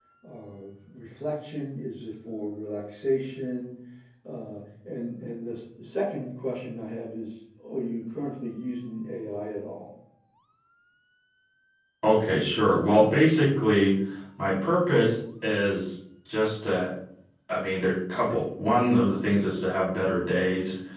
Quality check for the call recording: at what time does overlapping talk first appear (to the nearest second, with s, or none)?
none